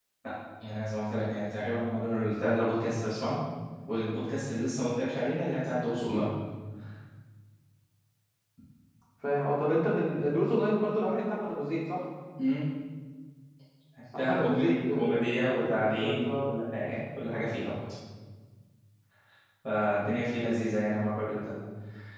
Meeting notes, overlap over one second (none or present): present